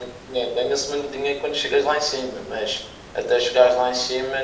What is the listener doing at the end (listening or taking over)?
listening